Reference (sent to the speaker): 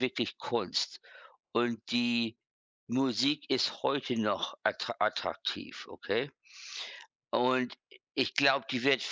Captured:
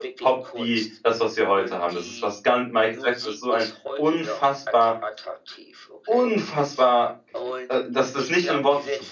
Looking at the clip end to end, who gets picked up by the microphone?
both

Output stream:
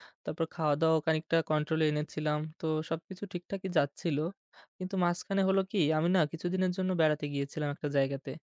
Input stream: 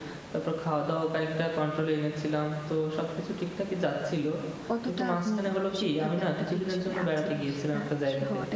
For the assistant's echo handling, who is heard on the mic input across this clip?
both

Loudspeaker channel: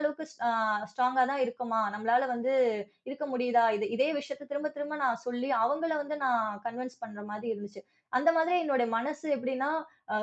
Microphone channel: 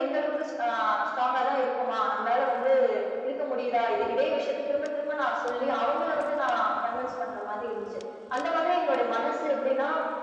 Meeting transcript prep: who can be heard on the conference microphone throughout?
echo only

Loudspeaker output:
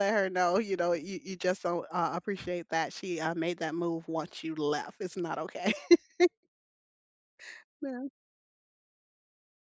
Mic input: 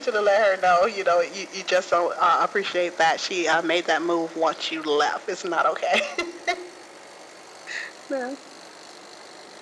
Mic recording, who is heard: echo only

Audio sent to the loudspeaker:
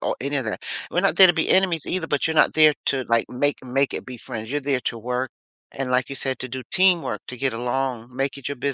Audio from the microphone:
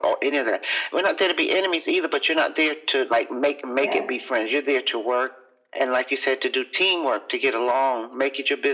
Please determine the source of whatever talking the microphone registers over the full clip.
both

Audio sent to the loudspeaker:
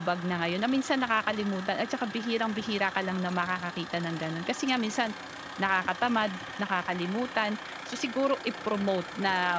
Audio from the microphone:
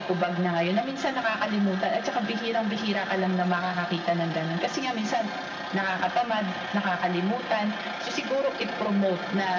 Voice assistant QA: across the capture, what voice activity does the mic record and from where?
echo only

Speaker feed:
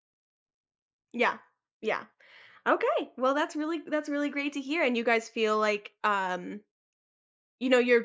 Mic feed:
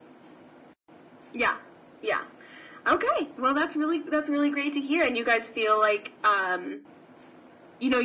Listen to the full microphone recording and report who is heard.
echo only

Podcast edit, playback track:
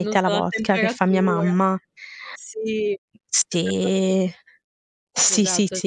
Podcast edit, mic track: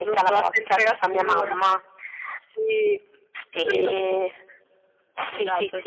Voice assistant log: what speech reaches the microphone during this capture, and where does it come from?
both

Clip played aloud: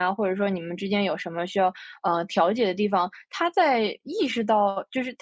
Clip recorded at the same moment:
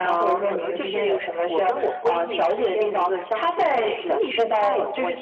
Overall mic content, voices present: both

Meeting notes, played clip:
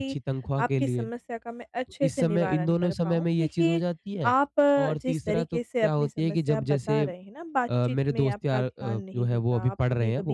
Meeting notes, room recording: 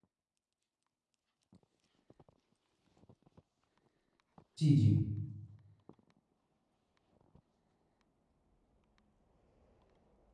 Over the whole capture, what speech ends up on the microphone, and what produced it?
user only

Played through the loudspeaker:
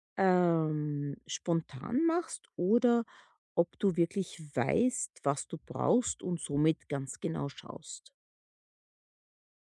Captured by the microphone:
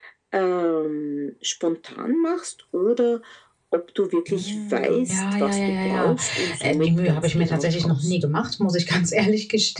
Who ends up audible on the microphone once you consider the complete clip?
both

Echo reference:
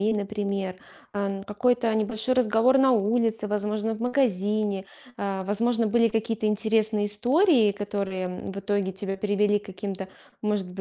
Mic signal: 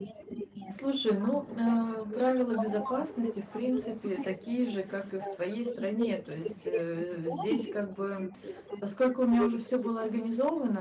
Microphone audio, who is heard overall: both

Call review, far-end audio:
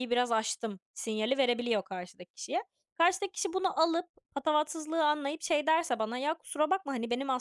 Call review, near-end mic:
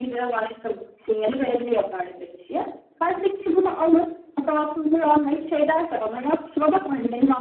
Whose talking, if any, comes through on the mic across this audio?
echo only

